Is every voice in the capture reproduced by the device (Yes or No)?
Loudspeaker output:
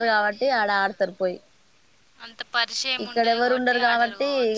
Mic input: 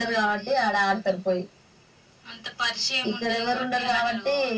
Yes